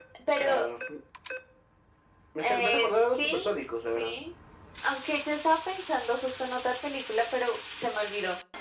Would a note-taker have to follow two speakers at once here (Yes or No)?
Yes